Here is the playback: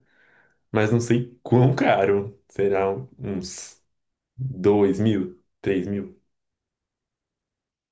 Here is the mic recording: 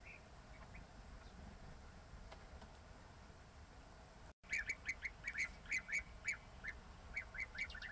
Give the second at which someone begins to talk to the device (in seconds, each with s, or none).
none